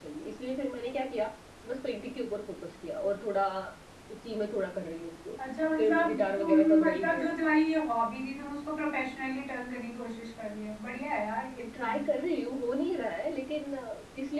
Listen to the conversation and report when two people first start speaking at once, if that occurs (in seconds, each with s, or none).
5.8 s